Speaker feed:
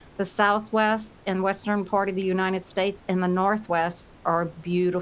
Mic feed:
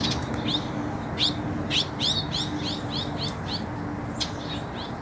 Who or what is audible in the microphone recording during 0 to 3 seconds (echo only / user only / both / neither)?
neither